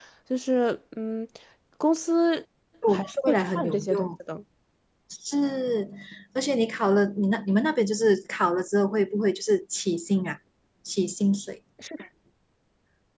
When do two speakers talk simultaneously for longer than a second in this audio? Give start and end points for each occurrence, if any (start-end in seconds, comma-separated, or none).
2.9-4.1